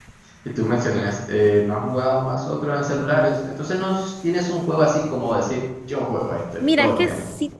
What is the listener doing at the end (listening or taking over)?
taking over